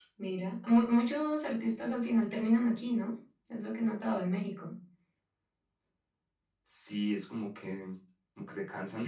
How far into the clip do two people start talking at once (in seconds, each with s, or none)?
none